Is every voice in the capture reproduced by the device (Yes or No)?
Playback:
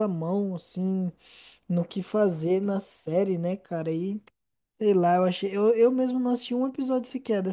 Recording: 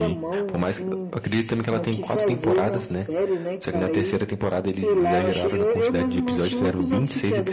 No